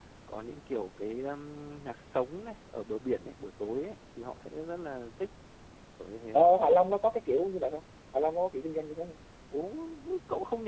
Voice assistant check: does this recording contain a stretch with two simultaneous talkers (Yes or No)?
No